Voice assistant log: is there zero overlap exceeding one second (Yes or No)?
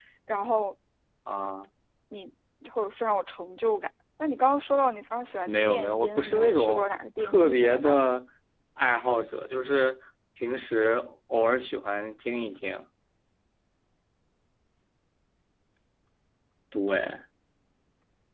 No